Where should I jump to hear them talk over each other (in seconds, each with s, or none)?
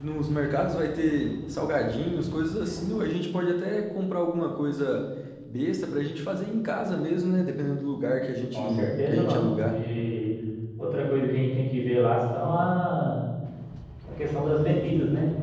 8.5 s